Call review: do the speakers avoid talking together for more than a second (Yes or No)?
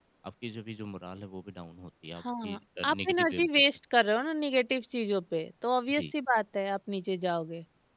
No